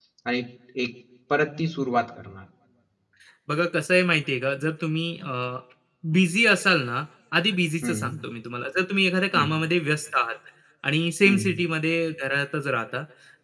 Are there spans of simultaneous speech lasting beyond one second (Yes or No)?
No